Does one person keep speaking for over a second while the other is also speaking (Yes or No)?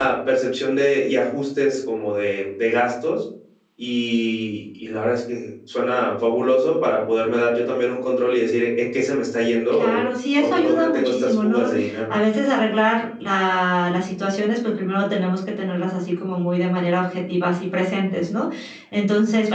Yes